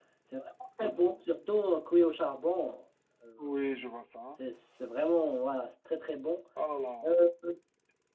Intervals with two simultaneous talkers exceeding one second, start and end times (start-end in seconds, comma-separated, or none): none